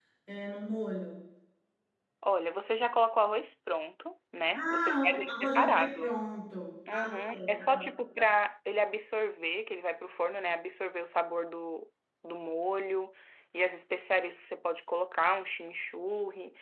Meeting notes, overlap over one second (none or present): present